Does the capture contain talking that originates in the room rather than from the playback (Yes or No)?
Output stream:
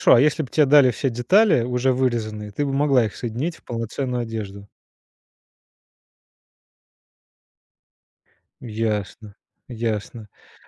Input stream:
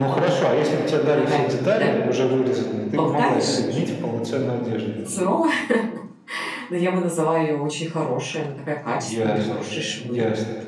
Yes